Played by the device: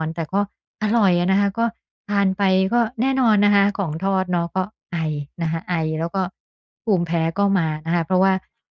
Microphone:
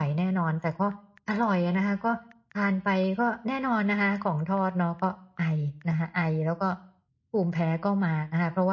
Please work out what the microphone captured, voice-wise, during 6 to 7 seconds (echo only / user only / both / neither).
echo only